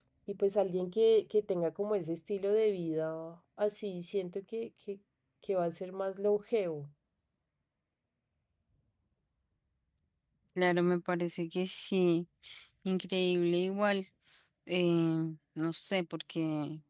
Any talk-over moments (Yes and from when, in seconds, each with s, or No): No